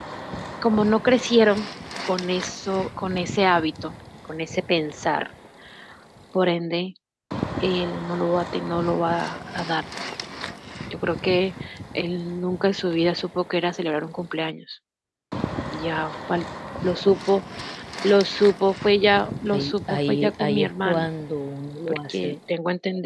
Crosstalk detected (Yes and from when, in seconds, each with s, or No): Yes, from 19.5 s